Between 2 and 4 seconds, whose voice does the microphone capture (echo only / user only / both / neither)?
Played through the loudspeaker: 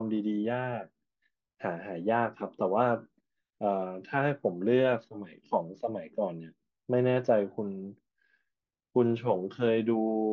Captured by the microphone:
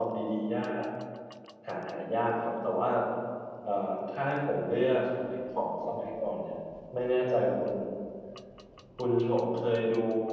echo only